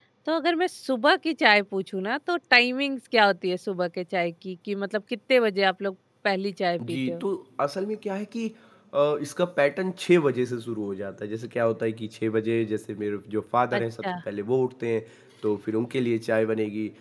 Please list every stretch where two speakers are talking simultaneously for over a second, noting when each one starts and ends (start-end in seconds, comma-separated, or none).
none